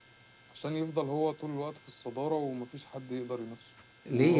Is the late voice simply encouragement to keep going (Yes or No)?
No